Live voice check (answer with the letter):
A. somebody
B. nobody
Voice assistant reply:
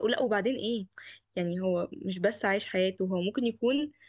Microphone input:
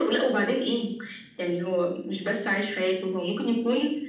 B